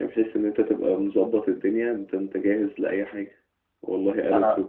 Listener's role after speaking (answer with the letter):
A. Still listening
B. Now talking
A